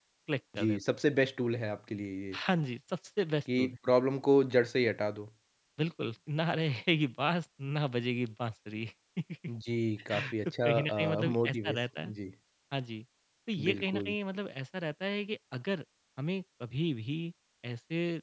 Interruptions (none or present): present